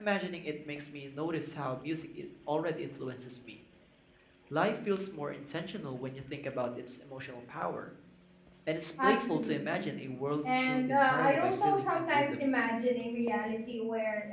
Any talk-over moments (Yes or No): Yes